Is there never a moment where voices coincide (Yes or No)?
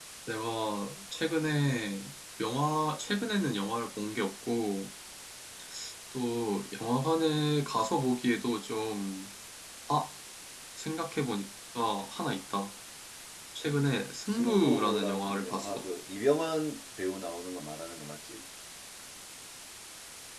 No